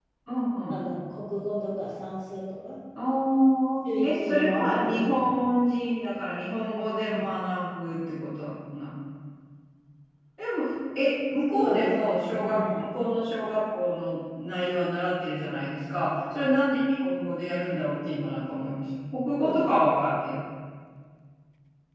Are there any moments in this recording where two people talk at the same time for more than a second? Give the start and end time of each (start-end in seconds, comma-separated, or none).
4.0-5.4, 11.5-12.9